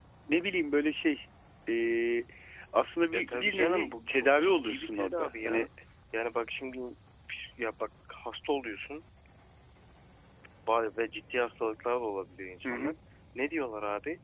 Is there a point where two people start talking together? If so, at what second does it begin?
3 s

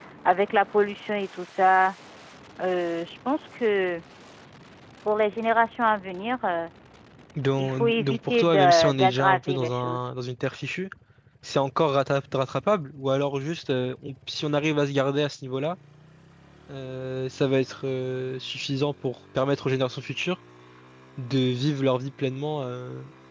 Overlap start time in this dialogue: 8 s

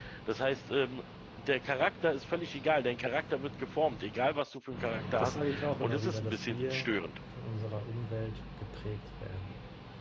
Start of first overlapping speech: 5 s

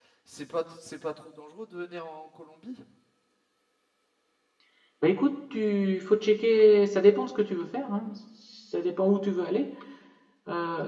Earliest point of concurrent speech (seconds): none

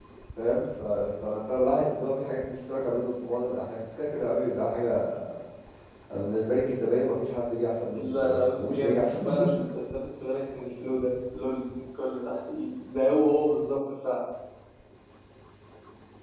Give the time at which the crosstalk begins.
8 s

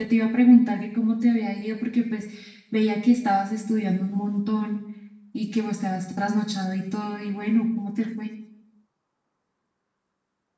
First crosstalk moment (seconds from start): none

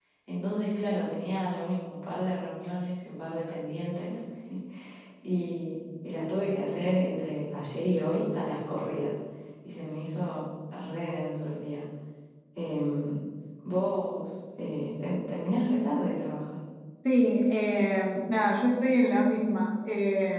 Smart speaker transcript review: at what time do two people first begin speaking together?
none

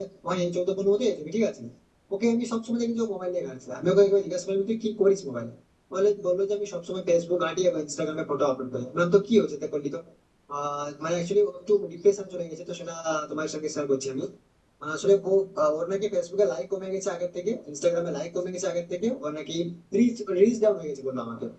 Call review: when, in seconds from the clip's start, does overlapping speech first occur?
none

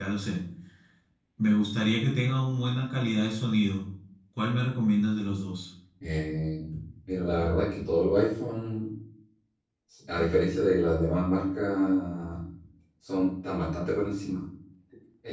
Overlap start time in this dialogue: none

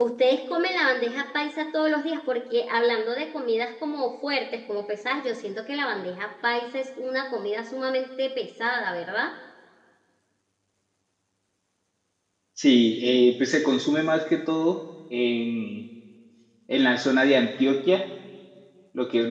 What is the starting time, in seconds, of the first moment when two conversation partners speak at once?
none

